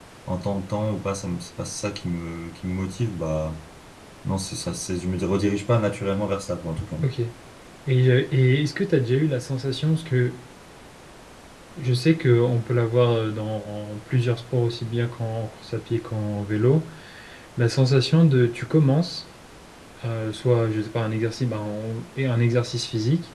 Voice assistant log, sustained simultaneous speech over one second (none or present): none